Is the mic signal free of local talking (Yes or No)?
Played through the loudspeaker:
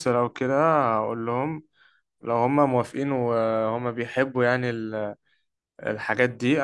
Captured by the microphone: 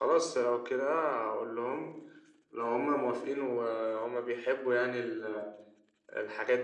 Yes